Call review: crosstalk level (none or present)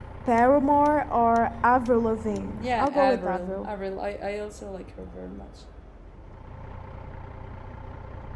present